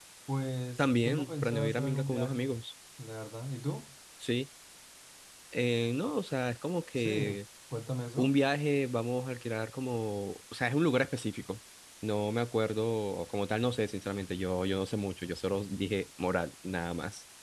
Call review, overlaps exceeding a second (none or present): present